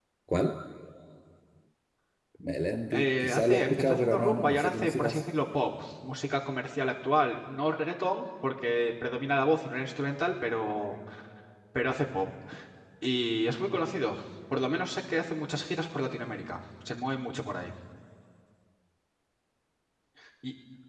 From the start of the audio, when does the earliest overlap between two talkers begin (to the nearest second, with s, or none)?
3 s